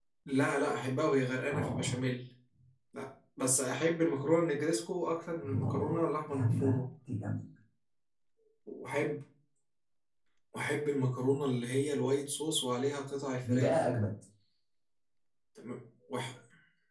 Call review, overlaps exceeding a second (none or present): present